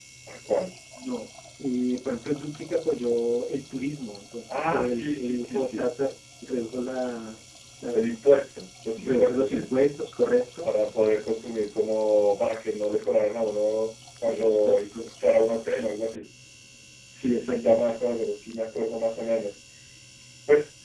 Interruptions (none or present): present